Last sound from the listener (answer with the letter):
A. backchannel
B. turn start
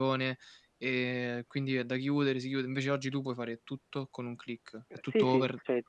B